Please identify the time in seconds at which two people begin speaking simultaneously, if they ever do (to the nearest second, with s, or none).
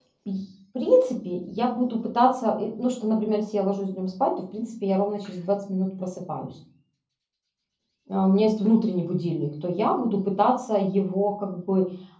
none